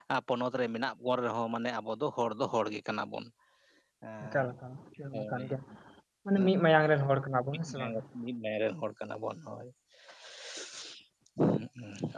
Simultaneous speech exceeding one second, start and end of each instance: none

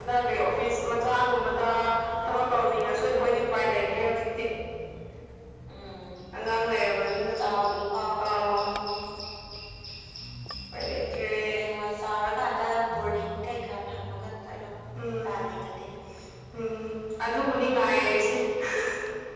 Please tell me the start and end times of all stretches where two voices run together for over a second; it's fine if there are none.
none

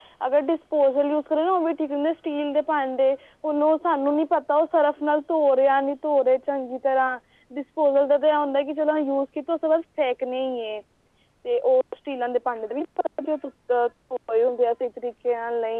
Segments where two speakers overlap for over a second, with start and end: none

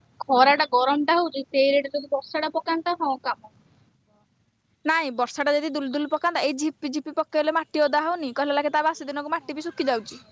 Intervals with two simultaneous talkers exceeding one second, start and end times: none

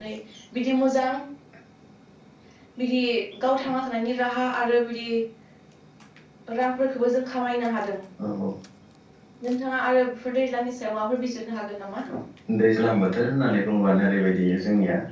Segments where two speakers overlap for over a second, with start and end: none

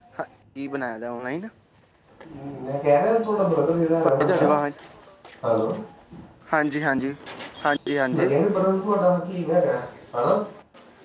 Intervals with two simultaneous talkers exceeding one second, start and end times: none

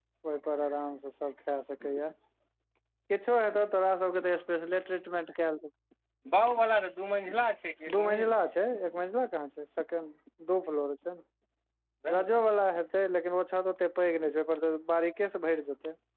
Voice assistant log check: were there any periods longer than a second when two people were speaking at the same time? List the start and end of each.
none

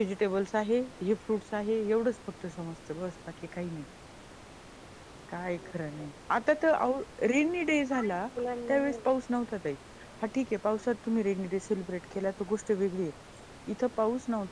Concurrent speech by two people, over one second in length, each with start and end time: none

